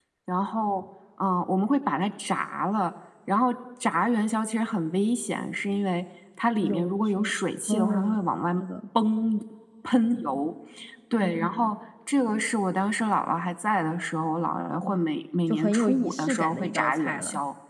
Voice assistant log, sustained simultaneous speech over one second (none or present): present